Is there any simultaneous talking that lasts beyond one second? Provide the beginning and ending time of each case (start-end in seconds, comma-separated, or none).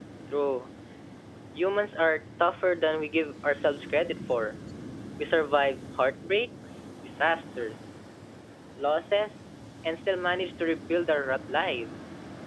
none